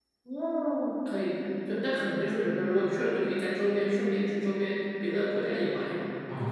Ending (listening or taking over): taking over